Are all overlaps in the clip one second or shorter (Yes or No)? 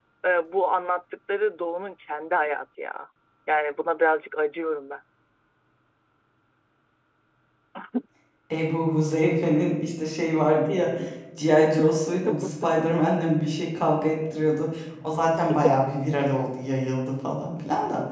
Yes